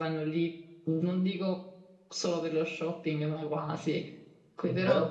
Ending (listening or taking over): listening